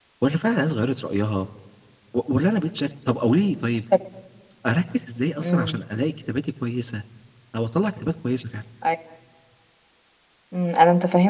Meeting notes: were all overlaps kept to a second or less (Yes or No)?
Yes